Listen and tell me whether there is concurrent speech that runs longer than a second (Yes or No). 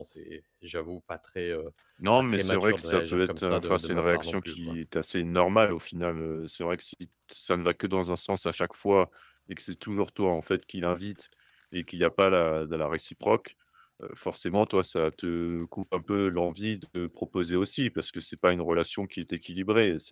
Yes